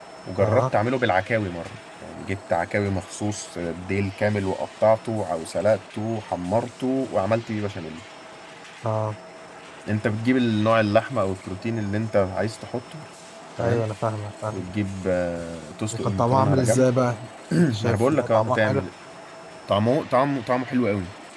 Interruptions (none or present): present